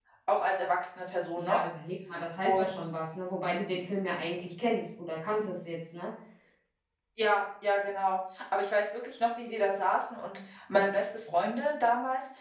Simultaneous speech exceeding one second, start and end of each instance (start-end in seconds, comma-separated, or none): none